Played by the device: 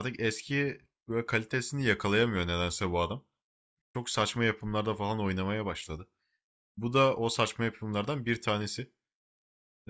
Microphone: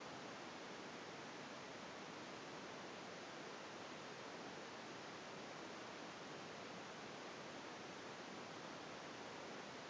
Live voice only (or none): none